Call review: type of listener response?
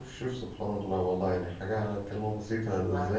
listening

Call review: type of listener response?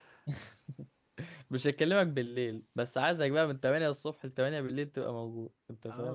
taking over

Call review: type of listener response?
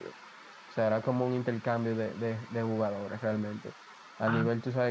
listening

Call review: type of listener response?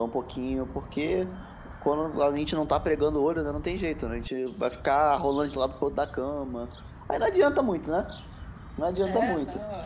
taking over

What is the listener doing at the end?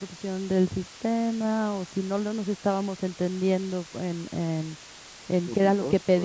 listening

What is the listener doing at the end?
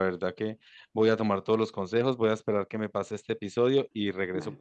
listening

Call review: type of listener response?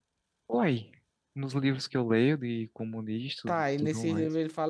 taking over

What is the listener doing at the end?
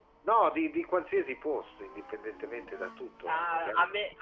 taking over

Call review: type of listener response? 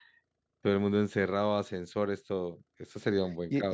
taking over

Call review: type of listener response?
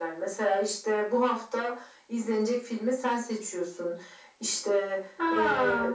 listening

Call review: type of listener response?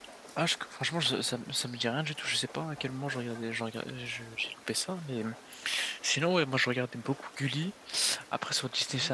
listening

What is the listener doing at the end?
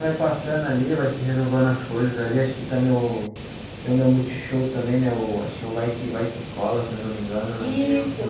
taking over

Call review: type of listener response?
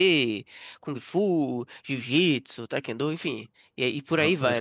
taking over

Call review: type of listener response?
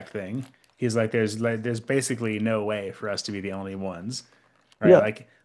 listening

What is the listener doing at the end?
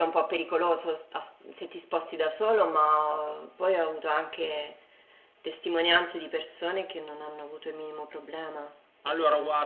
taking over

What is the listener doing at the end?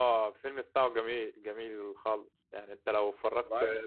listening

